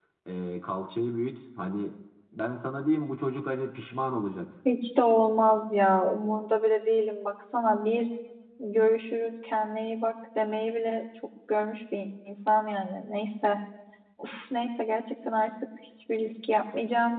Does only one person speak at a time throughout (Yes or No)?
Yes